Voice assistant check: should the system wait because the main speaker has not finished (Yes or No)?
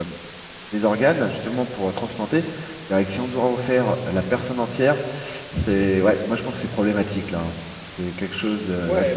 No